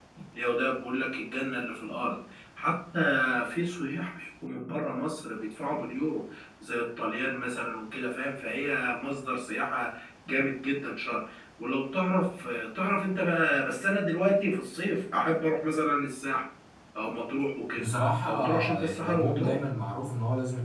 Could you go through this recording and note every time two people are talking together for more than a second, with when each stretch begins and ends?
18.3-19.6

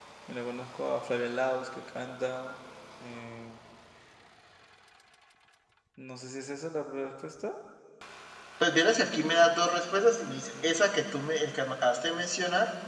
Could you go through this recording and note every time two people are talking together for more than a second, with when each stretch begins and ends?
none

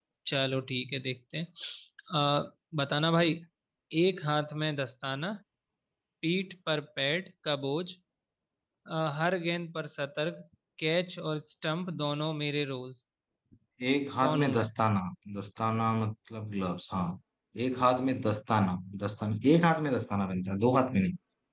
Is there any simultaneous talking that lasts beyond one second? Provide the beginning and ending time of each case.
none

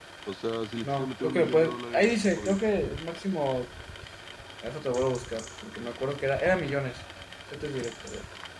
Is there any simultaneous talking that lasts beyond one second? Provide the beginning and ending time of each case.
0.8-2.6

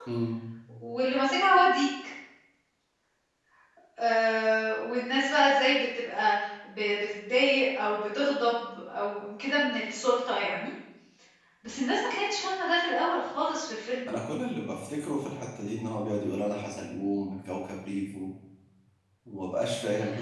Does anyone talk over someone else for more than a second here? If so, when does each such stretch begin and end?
none

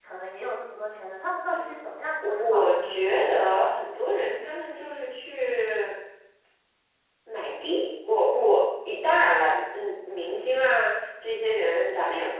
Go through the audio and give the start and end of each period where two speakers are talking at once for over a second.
2.4-3.8

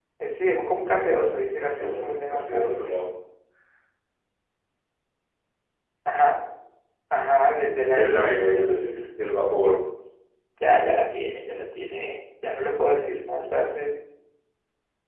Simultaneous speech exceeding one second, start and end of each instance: 0.9-2.7, 7.9-9.1

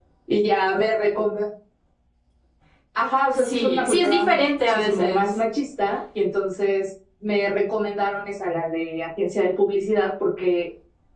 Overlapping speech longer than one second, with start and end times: 3.3-5.4

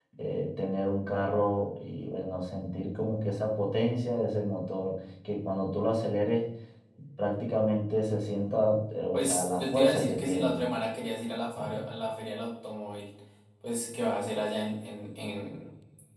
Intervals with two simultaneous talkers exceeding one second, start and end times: 9.1-10.6

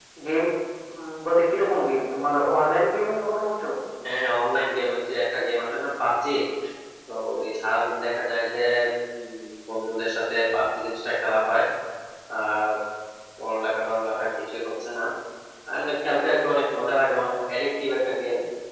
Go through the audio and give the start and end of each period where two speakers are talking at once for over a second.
none

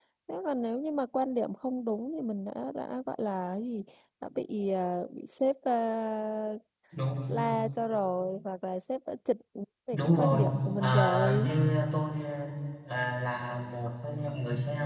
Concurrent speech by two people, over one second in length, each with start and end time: 9.9-11.5

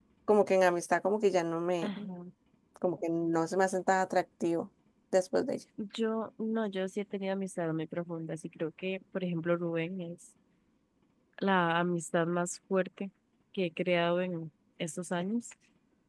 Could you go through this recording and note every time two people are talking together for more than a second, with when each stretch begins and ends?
none

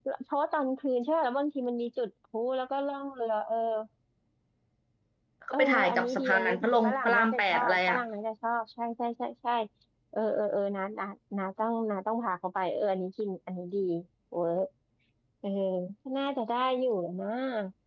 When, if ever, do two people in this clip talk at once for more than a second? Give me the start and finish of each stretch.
5.5-8.0

